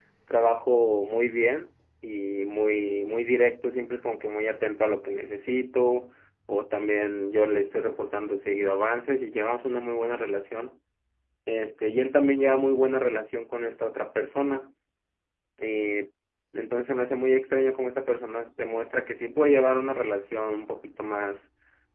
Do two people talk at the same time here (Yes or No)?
No